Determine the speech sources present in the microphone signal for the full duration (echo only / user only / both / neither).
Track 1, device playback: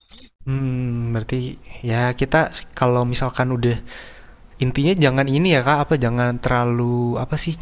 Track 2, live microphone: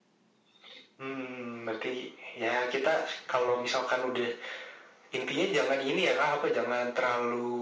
echo only